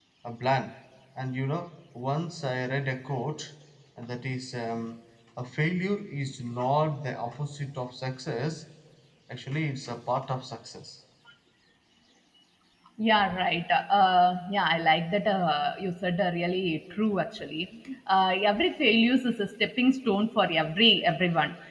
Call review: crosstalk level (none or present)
none